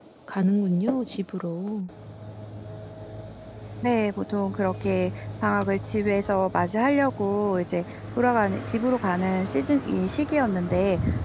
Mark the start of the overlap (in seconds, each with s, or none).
none